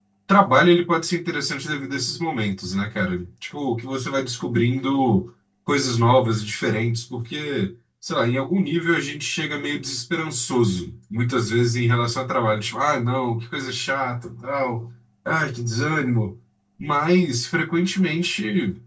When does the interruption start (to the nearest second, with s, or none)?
none